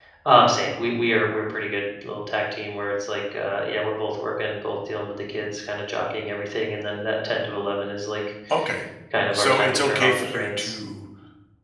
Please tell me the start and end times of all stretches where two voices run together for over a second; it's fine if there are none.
9.3-10.8

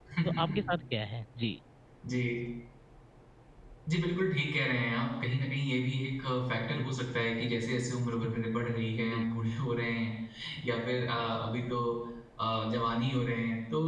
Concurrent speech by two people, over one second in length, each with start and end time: none

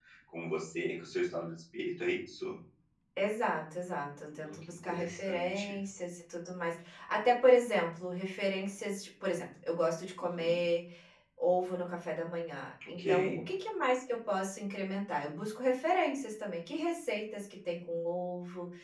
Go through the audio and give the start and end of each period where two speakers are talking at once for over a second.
4.4-5.8

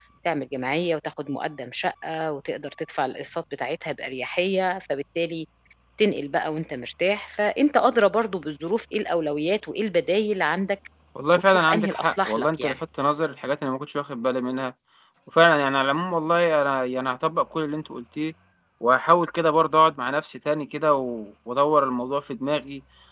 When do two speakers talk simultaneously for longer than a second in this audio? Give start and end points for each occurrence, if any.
11.4-12.8

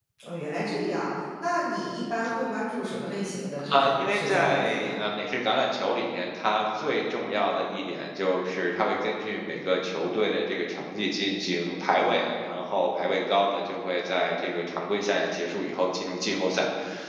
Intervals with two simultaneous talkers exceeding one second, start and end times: 3.7-4.9

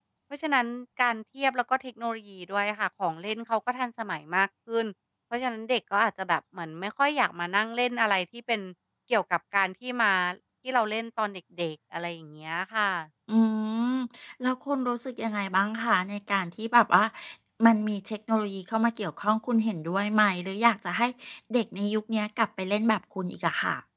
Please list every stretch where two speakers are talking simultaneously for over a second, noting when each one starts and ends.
none

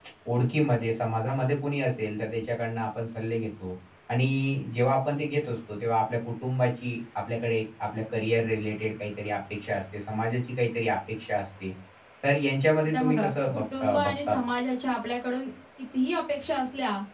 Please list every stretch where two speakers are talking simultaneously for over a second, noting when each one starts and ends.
12.8-14.4

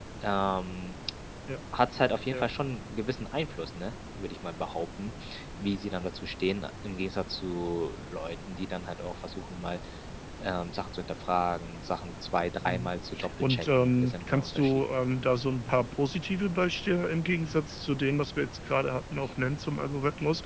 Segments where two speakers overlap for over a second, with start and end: 13.4-14.8

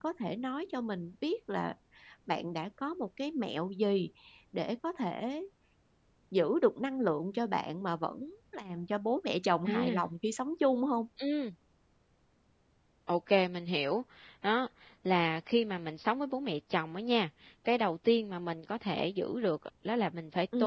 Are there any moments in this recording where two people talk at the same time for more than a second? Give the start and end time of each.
none

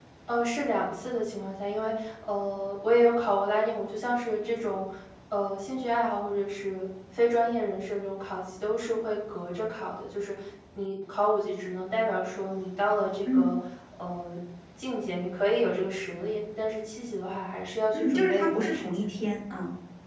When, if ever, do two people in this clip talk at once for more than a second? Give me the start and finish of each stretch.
17.9-19.3

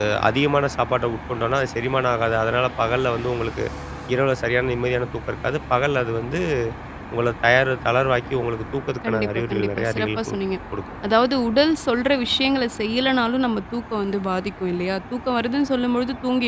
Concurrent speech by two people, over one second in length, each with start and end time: 9.1-10.4

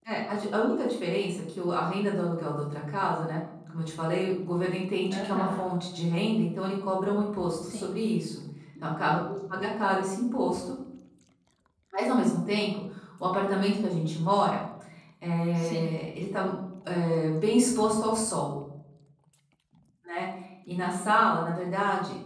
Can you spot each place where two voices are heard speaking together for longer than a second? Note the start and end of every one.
none

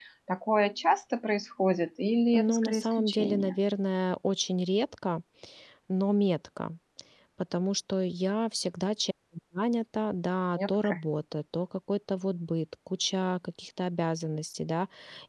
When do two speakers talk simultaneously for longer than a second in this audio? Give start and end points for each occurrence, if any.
2.3-3.6

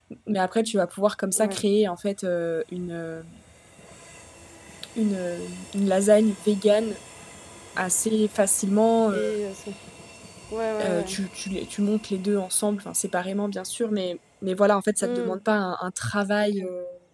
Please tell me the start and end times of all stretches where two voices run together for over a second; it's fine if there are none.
none

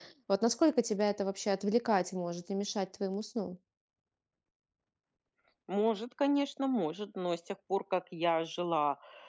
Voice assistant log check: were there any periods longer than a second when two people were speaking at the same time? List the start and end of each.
none

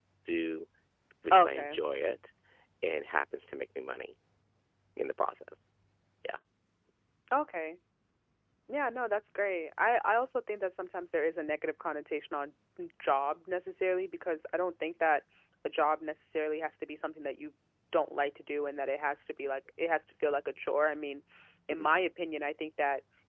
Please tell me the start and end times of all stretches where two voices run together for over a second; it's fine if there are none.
none

